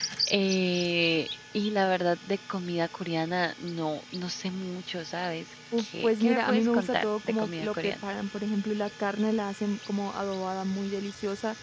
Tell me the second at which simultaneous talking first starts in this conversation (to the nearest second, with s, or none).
6 s